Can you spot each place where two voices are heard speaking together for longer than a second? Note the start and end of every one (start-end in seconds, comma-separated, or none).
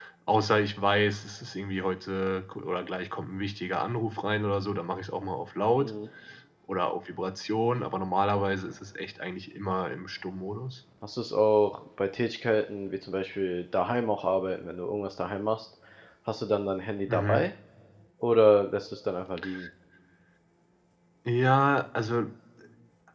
none